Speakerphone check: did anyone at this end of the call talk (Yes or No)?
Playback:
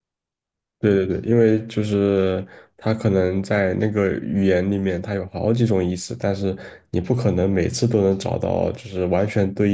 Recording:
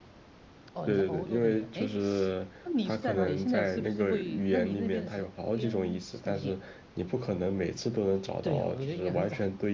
Yes